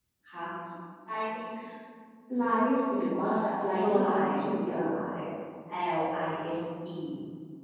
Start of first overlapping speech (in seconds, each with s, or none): 3.6 s